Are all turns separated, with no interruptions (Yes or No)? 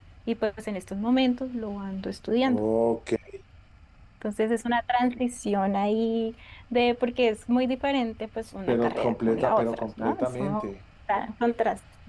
No